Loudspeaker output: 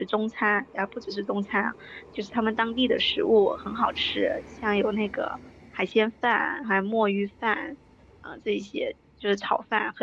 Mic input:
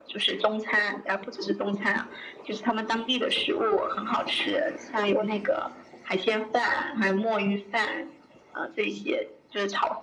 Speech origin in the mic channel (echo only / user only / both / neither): echo only